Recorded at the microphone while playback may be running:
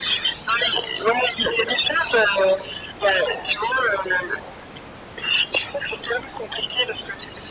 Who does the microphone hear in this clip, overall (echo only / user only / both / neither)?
echo only